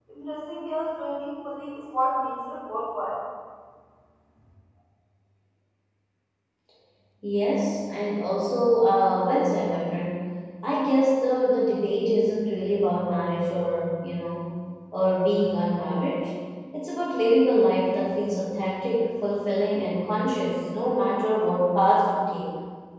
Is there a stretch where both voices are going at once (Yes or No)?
No